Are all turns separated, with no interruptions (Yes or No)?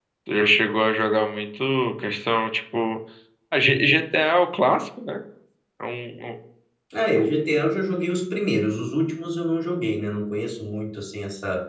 Yes